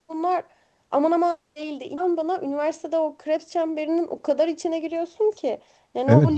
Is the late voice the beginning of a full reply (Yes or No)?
Yes